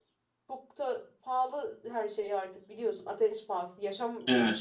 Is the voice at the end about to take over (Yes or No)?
No